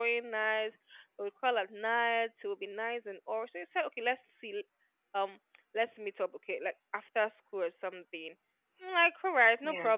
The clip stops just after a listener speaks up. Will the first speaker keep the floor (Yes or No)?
Yes